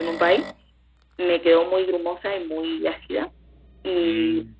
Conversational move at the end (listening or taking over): listening